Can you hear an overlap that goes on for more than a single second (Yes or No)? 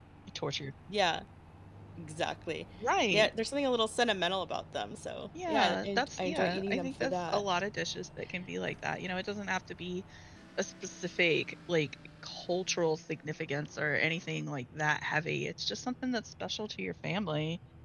Yes